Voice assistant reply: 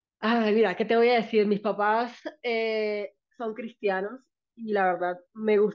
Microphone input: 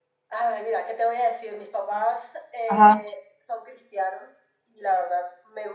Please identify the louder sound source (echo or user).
user